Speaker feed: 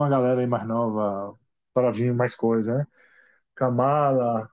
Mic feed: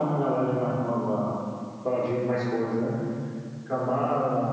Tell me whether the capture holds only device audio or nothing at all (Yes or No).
Yes